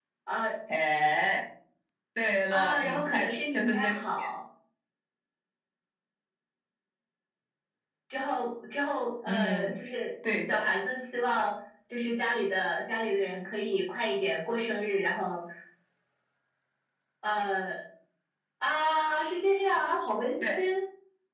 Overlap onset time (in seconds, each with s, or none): 2.5 s